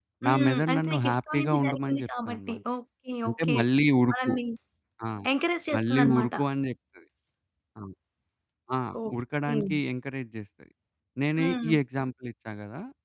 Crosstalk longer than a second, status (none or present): present